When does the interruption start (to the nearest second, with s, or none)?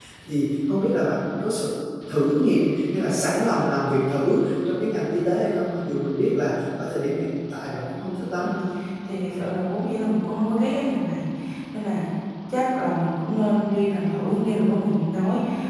none